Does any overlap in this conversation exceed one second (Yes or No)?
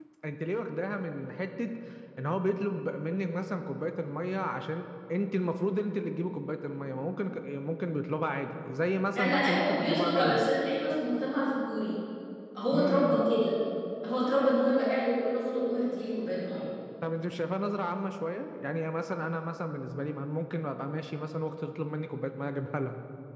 Yes